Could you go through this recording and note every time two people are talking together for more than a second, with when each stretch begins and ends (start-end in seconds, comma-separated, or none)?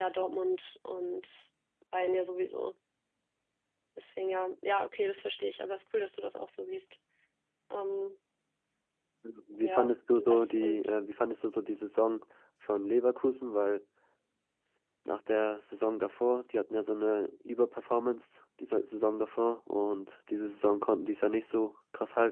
9.6-10.9